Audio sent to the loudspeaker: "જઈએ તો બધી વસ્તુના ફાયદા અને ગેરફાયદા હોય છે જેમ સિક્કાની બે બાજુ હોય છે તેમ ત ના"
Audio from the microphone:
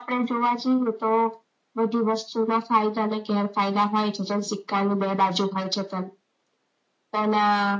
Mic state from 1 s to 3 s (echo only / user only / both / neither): echo only